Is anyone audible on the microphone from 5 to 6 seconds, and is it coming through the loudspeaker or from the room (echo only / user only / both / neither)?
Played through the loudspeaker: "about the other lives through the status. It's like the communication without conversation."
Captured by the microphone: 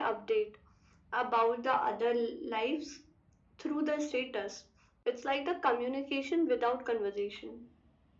echo only